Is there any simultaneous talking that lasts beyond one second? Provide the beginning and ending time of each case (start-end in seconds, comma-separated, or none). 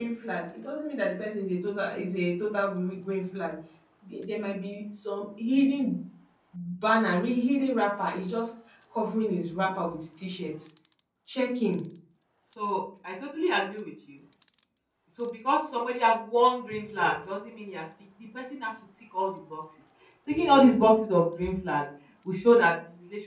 none